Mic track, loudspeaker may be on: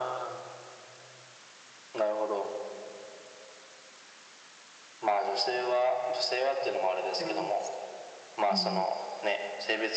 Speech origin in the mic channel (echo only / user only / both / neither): both